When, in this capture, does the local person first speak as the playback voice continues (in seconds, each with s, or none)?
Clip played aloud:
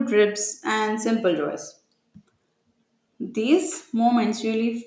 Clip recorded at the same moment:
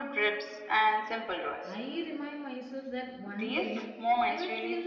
1.6 s